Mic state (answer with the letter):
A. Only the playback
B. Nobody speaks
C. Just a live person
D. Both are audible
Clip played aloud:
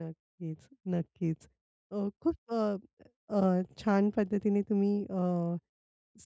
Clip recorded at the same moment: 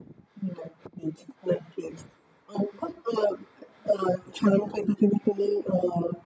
A